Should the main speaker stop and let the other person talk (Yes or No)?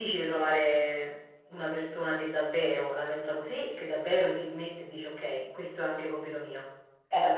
Yes